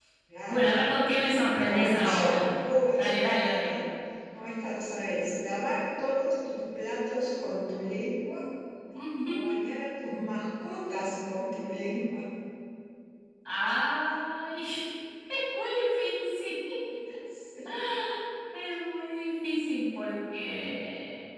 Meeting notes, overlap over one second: present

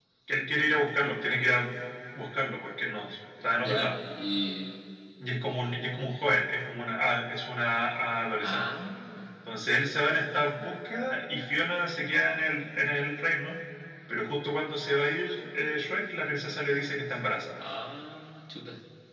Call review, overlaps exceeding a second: none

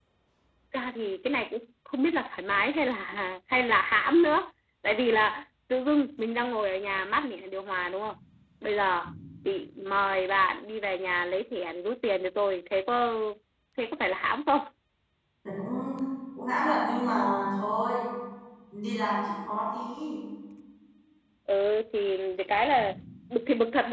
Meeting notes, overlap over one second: none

